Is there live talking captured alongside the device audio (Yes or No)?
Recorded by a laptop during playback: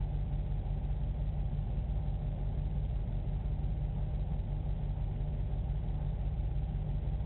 No